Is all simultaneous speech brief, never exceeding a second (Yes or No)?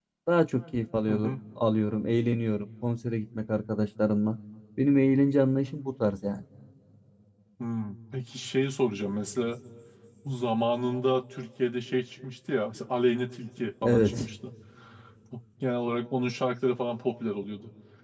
Yes